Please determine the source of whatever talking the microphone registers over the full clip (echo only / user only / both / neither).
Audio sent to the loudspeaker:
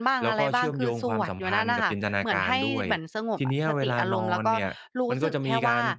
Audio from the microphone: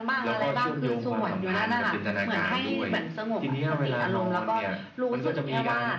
echo only